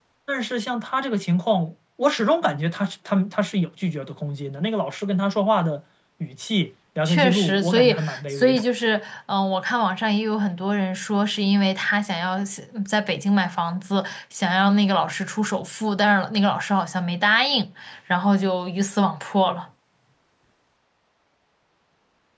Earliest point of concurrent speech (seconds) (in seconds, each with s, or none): 7.0 s